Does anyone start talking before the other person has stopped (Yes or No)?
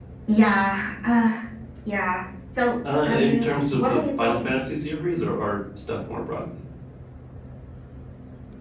Yes